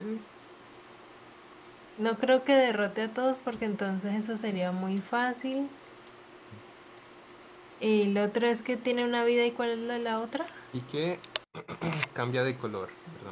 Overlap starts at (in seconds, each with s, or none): none